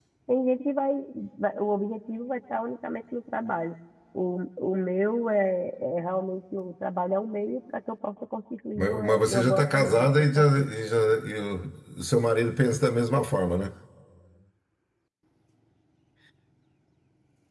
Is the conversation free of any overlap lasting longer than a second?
No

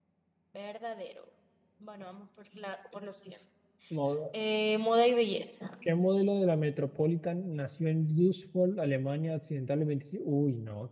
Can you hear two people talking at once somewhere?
No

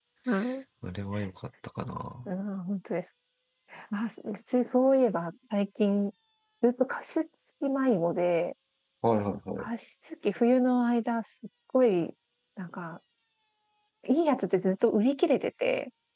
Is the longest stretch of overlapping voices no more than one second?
Yes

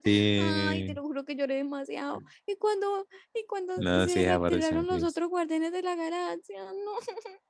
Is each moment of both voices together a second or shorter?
No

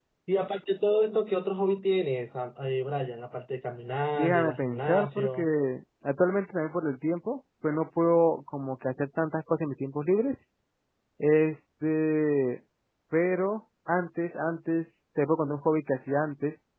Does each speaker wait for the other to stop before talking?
No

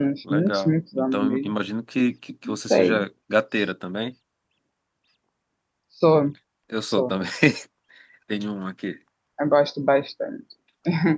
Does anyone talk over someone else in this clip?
Yes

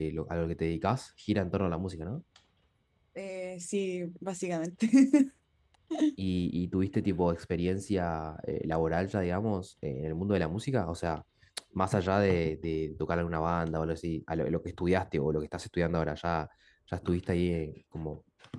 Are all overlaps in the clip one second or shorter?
Yes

